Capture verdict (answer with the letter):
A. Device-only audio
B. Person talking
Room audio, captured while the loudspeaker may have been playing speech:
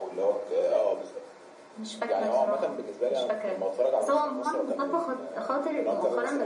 A